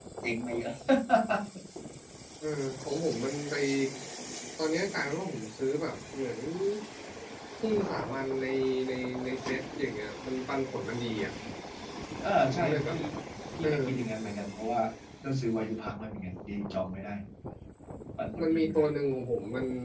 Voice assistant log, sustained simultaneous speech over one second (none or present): none